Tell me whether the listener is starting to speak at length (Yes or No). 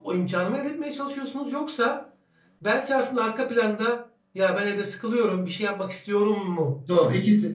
Yes